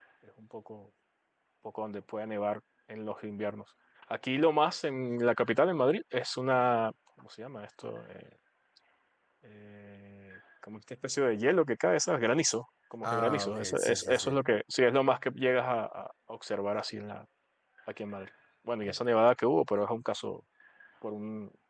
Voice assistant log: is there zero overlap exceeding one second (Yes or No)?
No